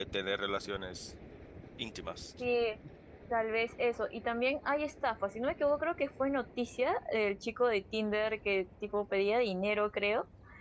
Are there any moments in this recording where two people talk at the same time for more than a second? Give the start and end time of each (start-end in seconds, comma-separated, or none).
none